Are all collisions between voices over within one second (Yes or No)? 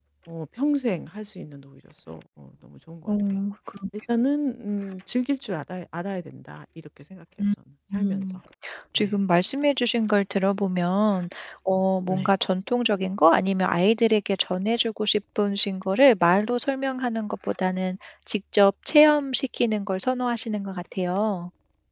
Yes